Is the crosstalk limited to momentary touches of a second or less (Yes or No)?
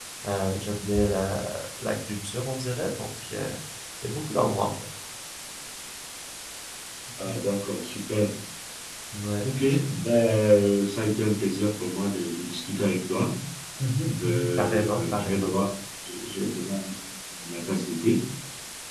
No